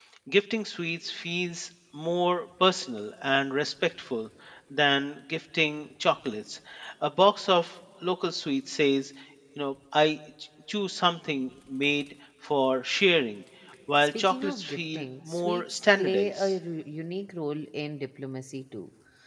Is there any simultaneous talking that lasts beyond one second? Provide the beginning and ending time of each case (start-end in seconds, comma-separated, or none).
14.2-16.5